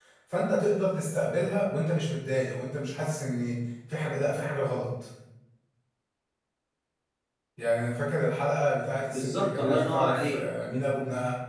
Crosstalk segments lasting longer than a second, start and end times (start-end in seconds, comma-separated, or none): 9.1-10.4